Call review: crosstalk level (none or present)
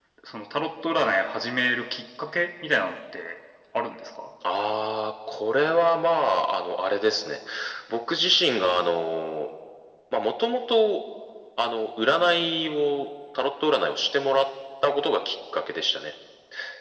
none